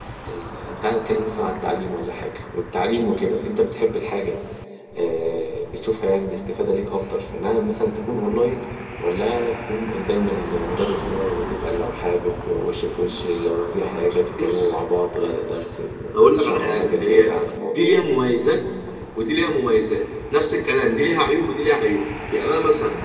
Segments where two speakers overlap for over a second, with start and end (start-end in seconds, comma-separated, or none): 16.1-17.9